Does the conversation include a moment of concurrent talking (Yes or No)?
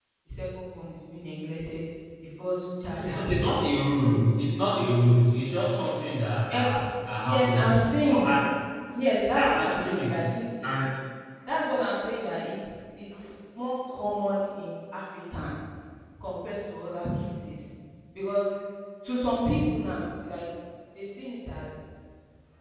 Yes